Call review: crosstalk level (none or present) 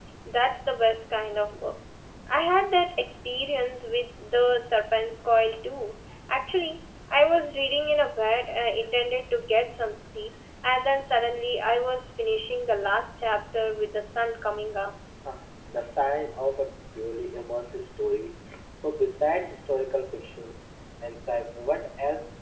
none